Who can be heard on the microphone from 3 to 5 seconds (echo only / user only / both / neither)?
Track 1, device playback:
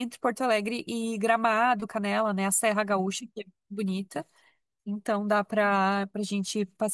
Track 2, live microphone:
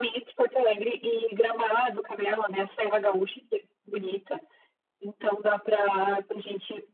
echo only